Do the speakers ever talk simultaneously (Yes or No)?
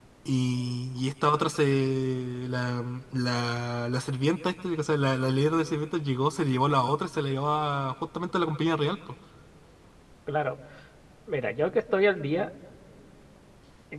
No